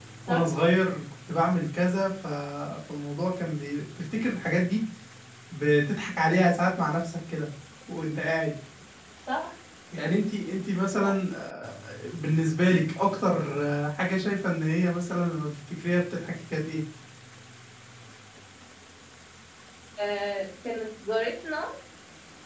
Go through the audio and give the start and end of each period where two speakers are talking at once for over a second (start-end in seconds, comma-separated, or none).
none